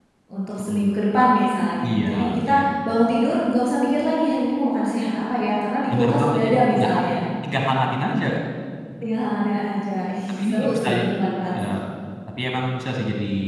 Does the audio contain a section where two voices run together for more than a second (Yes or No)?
Yes